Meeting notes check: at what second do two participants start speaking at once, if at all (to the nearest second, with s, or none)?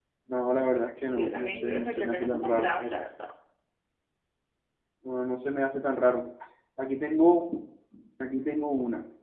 1 s